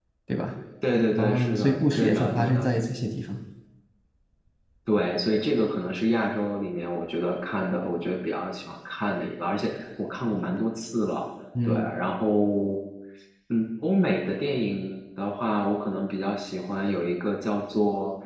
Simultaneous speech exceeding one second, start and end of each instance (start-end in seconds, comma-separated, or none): 1.2-2.7